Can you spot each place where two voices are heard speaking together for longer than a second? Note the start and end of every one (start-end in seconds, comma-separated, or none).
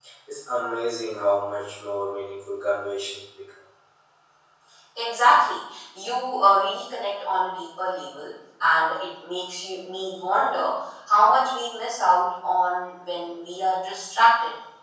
none